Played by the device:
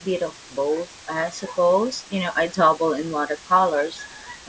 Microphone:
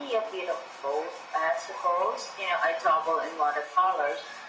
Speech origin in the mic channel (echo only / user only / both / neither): echo only